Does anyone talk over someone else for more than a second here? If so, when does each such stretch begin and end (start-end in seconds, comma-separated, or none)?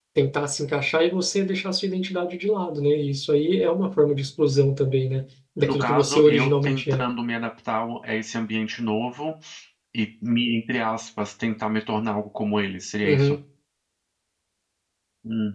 5.6-7.0